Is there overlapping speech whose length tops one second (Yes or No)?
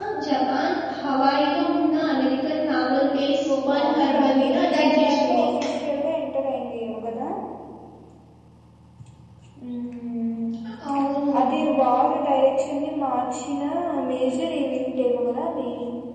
Yes